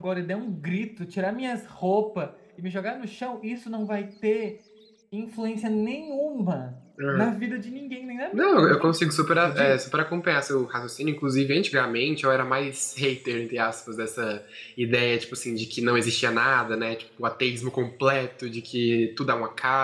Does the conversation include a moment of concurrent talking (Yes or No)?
Yes